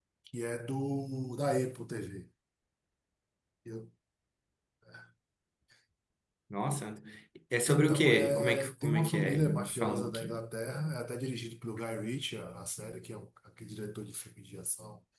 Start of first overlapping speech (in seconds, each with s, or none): 7.7 s